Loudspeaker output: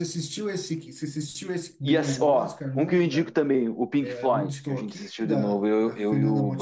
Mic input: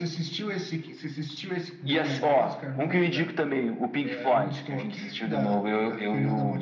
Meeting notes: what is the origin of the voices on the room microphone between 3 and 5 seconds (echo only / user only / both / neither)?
echo only